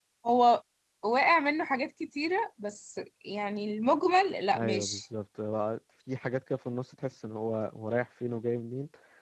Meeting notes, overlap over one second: none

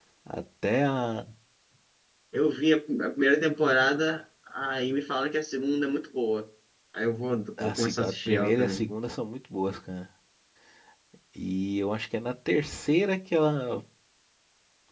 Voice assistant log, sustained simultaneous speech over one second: present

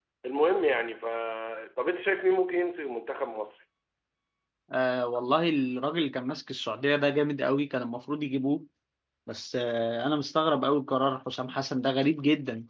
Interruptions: none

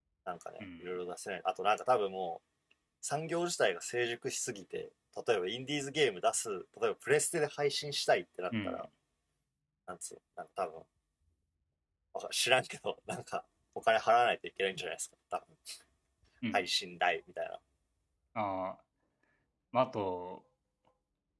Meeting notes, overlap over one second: none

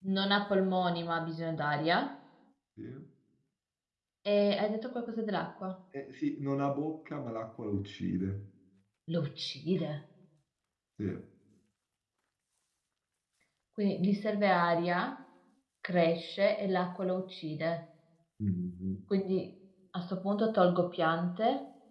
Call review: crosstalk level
none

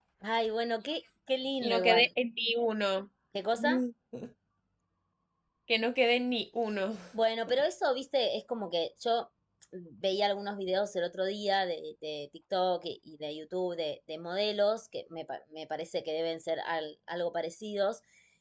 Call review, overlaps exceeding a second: none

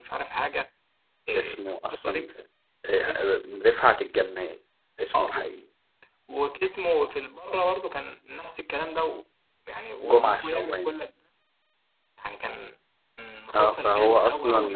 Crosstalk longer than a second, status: present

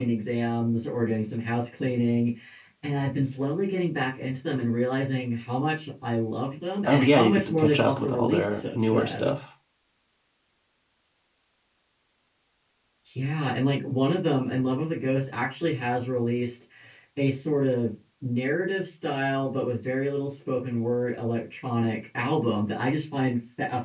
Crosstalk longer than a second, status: present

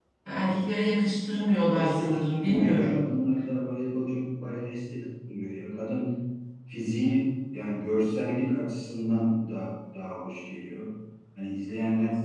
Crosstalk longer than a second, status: present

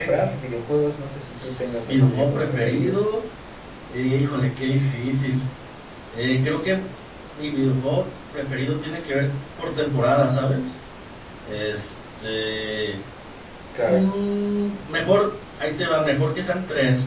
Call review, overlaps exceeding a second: present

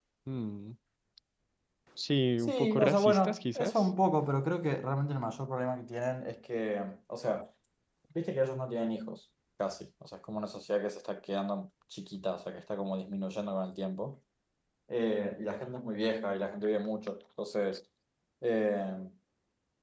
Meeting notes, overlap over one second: present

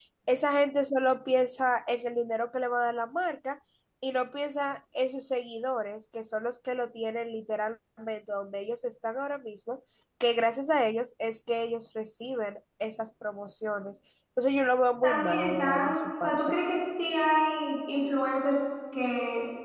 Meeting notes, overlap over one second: present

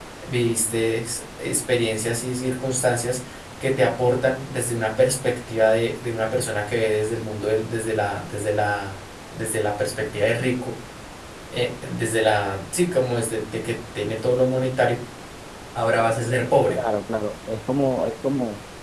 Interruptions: none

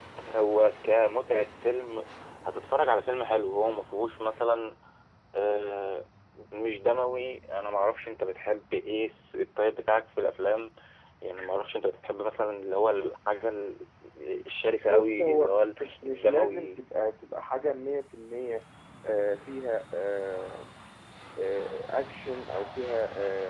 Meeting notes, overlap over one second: present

